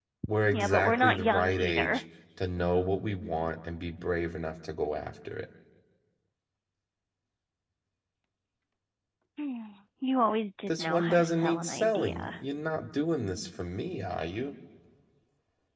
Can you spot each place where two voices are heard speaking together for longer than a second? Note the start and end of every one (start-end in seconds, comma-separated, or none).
0.5-2.0, 10.7-12.4